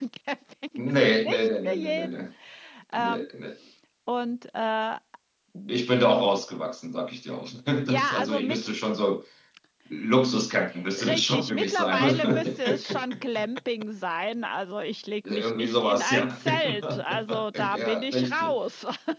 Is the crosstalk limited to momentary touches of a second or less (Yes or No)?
No